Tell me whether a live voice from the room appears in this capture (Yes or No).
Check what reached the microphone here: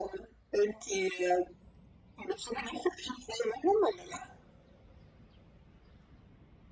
No